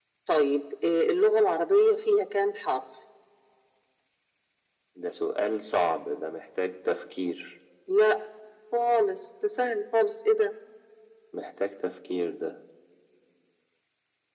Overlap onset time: none

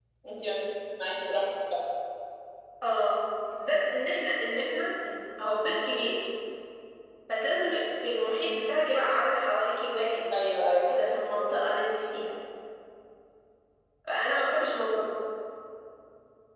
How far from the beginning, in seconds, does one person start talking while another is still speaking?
none

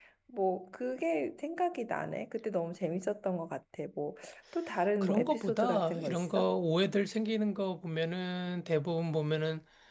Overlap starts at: 5.0 s

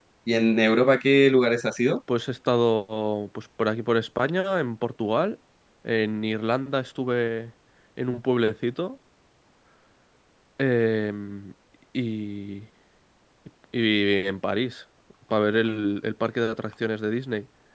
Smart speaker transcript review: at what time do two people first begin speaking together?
none

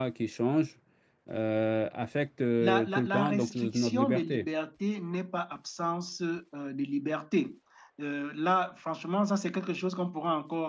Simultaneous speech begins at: 2.6 s

